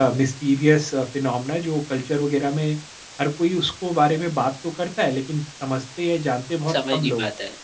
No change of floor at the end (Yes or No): No